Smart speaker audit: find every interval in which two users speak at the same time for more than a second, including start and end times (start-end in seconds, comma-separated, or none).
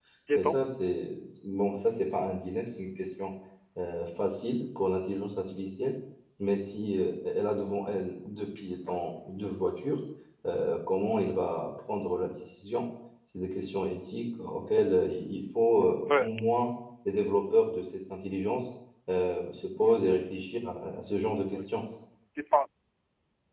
none